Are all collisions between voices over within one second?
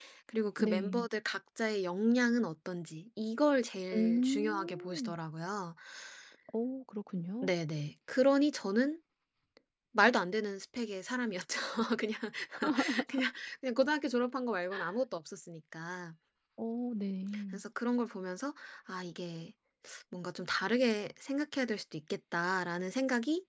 No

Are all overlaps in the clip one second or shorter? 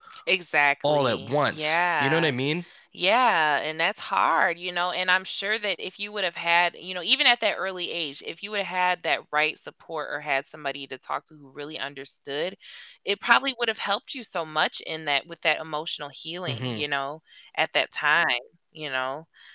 No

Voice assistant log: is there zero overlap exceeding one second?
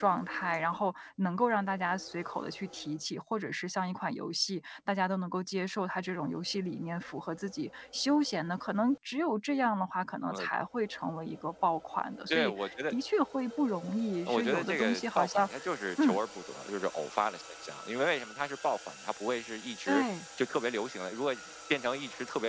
No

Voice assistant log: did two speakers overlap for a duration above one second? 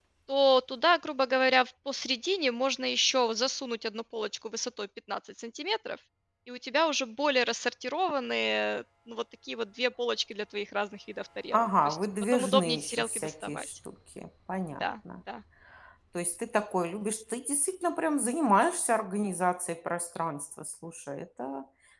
Yes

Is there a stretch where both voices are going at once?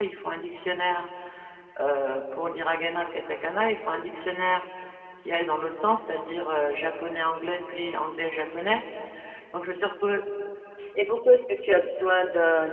No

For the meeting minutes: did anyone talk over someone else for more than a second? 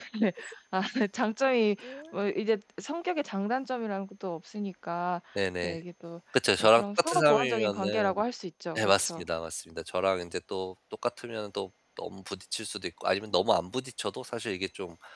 Yes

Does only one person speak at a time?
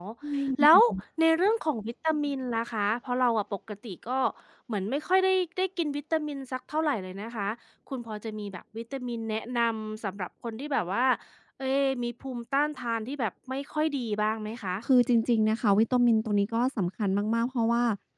Yes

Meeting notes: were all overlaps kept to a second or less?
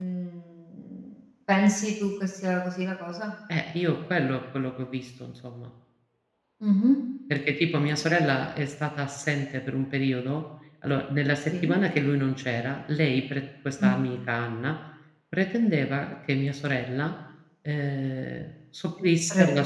Yes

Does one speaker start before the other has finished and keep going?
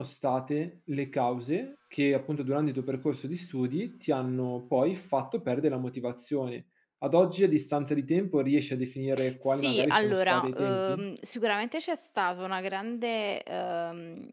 Yes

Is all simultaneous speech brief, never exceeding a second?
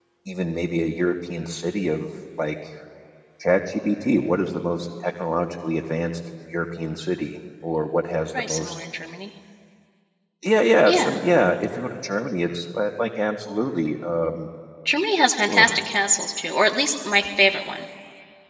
Yes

